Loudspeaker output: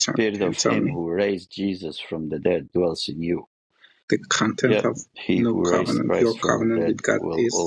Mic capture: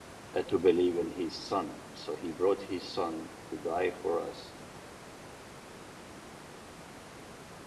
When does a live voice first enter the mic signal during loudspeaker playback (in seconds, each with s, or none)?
0.3 s